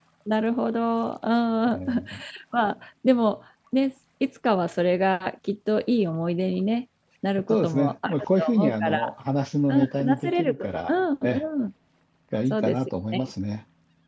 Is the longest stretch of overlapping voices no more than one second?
No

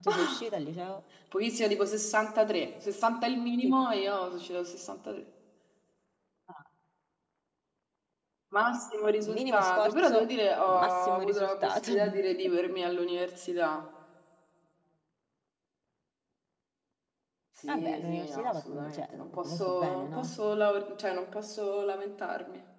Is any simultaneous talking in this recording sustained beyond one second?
Yes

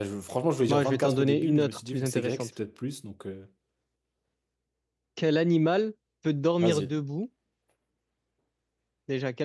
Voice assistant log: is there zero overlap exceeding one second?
No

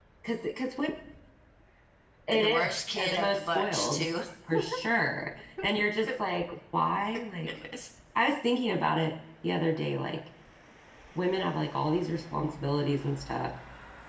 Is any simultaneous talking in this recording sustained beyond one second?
Yes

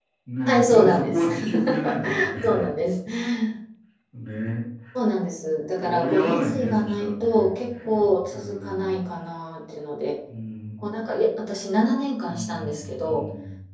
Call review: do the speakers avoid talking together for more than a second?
No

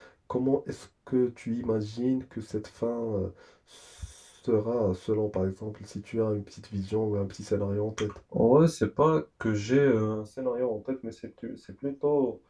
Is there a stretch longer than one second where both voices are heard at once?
No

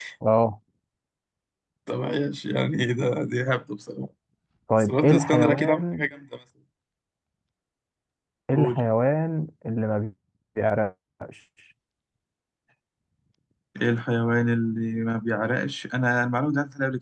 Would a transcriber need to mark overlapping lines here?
Yes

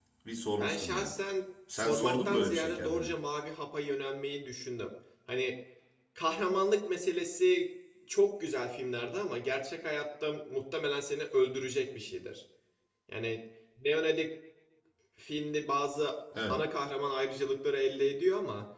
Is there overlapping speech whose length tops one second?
Yes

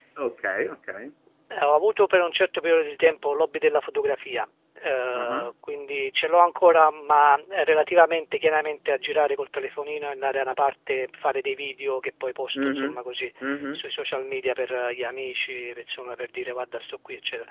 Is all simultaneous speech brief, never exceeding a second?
Yes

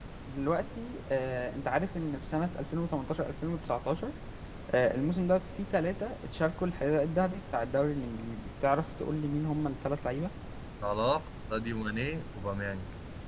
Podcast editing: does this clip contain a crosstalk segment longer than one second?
No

